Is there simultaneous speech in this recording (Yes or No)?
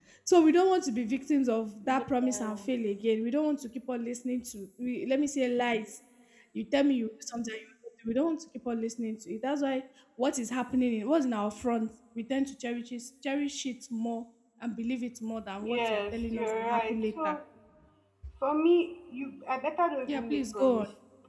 Yes